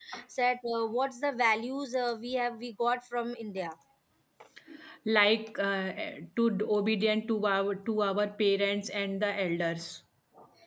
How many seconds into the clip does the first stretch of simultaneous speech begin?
none

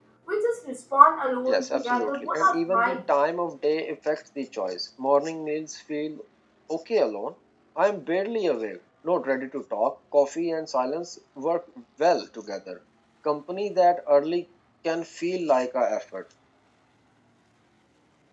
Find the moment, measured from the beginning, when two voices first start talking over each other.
1 s

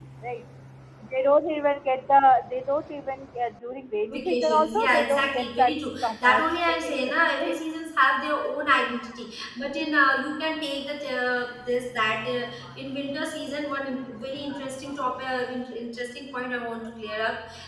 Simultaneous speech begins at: 4 s

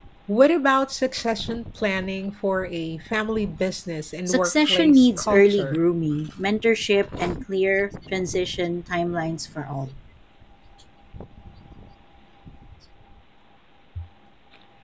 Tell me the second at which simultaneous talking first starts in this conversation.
4 s

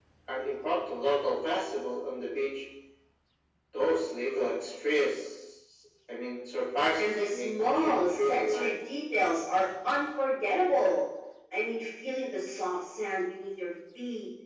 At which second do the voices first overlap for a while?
7 s

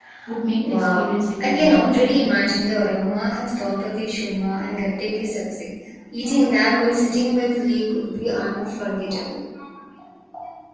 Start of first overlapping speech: 1 s

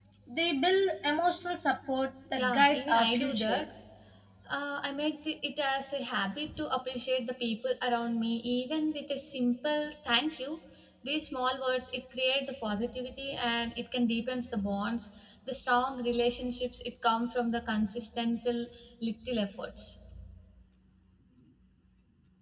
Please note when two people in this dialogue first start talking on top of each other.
2 s

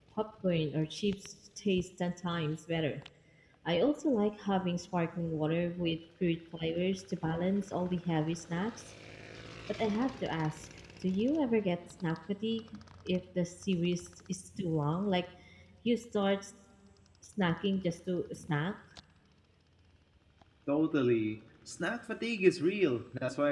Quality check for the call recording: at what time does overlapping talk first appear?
none

